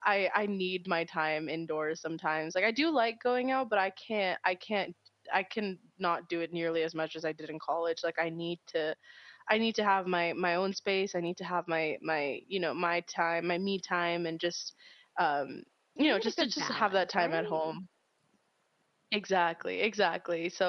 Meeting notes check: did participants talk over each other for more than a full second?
Yes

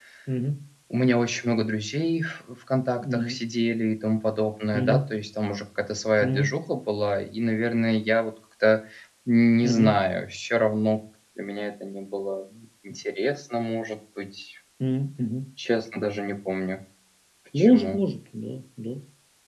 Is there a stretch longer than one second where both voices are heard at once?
No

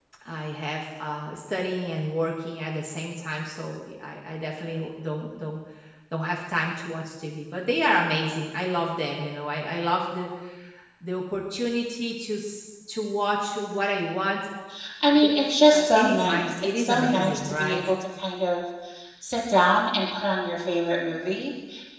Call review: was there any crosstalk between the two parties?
Yes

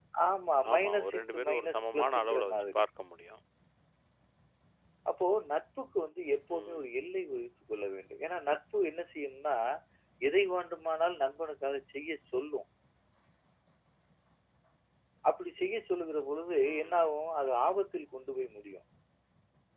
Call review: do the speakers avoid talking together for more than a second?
No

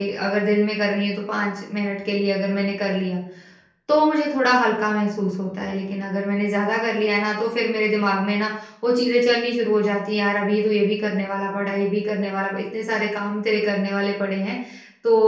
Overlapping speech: No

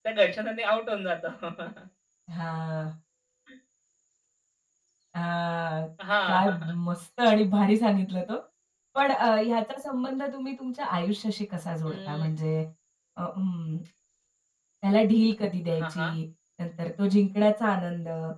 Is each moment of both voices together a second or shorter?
Yes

